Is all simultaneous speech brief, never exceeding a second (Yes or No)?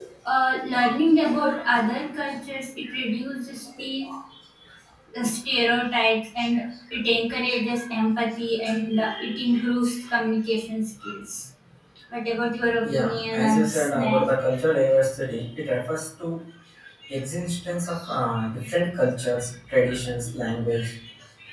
No